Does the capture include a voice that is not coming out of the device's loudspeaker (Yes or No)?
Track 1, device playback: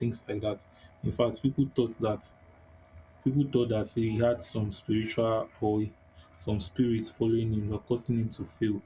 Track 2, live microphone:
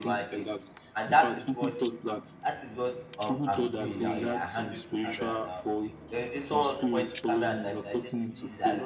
Yes